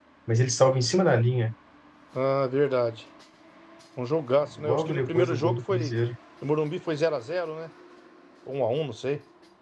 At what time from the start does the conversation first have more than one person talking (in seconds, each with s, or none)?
4.6 s